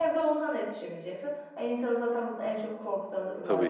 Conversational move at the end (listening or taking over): taking over